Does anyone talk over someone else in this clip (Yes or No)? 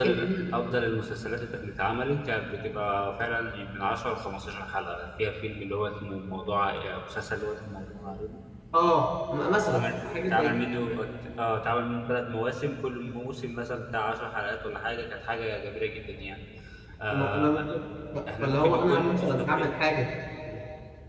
Yes